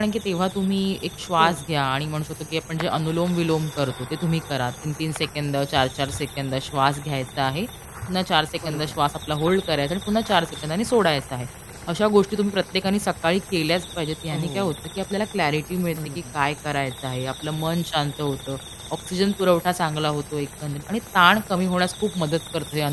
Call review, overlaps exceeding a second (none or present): none